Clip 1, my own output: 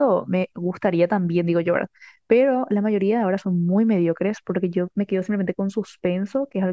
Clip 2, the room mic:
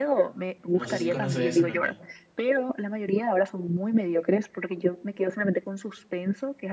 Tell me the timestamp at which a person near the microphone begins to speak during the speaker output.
0.7 s

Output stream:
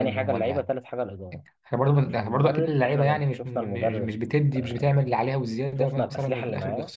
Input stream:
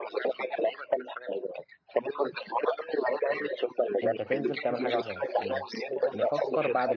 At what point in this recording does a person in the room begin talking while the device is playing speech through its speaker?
4.0 s

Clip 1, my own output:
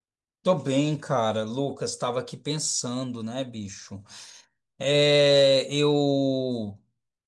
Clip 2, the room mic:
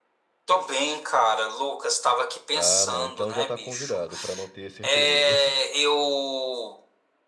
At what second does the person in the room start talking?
2.5 s

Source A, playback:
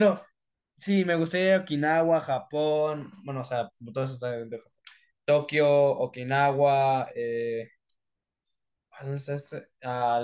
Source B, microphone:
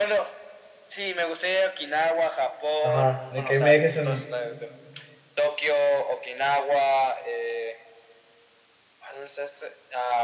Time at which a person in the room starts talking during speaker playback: 2.8 s

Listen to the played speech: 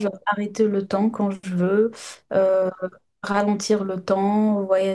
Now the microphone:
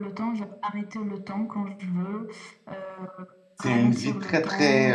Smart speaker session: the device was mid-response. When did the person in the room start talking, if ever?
3.5 s

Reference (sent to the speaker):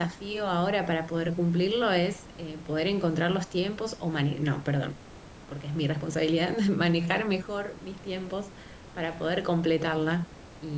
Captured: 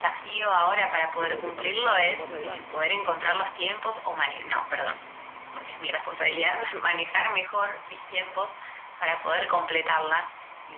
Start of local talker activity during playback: 1.2 s

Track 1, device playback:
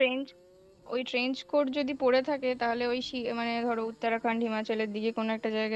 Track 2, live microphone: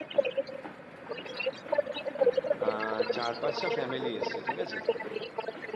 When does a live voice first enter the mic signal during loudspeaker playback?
2.6 s

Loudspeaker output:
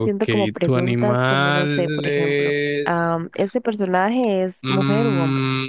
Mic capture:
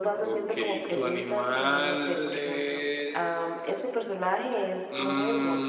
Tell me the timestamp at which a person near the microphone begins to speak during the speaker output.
none

